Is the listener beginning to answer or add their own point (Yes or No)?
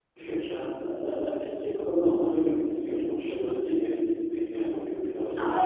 Yes